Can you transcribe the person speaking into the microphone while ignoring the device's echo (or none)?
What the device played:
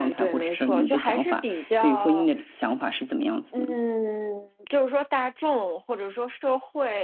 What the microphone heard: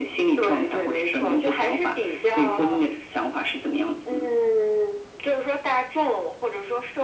none